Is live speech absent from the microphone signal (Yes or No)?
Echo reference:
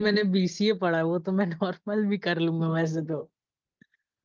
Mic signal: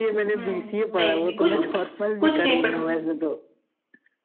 No